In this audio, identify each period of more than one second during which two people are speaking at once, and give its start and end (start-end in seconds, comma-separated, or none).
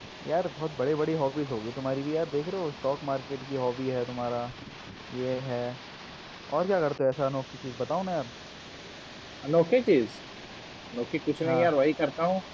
none